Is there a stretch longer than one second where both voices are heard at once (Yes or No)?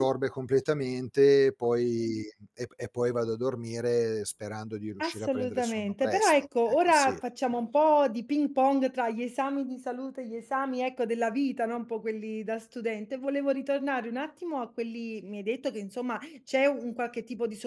Yes